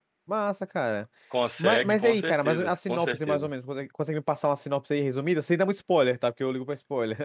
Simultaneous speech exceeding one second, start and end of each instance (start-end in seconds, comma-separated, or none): 1.6-3.5